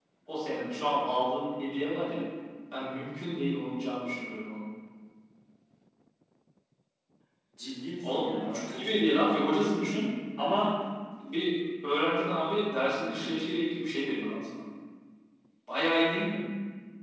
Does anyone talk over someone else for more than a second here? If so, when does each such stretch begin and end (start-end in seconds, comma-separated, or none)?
8.1-9.6